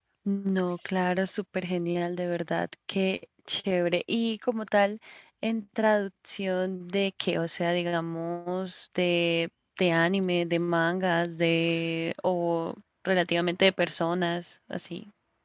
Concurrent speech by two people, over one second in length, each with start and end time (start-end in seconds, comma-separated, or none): none